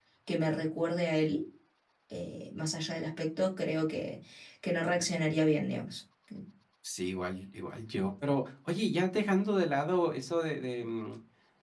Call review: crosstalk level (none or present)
none